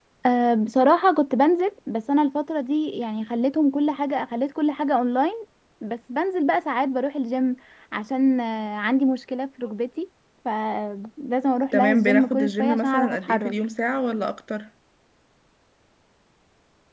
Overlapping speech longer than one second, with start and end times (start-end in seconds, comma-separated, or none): 11.7-13.5